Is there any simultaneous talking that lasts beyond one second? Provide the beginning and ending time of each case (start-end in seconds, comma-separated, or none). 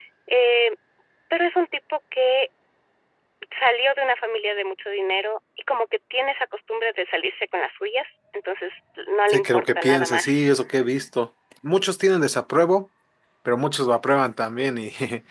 9.3-10.5